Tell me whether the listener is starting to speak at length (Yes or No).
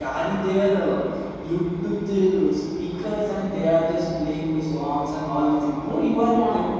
No